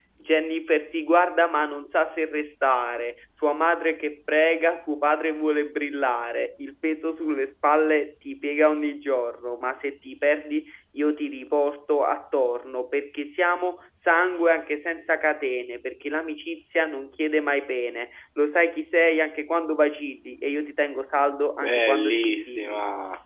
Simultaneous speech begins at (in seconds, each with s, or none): 21.5 s